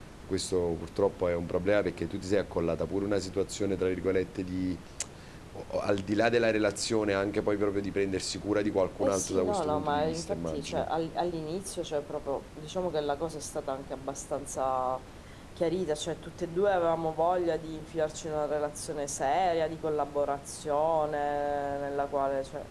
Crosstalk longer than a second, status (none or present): present